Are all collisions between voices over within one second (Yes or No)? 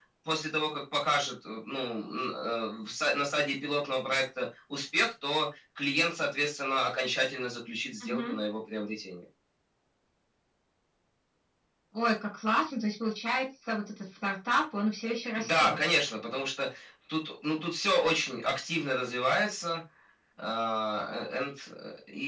Yes